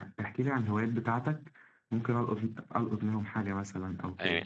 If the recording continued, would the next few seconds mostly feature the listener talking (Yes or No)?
Yes